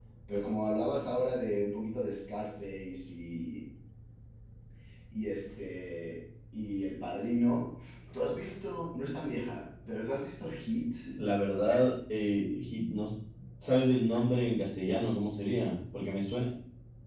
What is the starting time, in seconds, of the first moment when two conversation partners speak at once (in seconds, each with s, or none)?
none